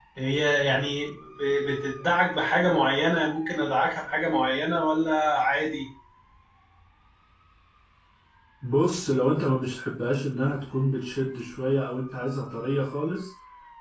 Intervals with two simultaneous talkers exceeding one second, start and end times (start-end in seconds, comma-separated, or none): none